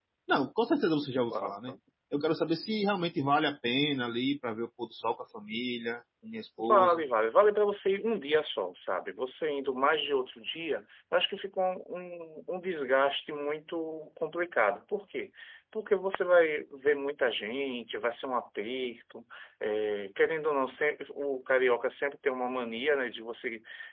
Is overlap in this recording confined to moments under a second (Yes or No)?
Yes